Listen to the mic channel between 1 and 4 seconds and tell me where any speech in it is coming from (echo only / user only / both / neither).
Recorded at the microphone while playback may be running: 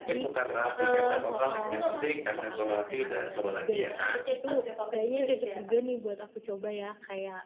both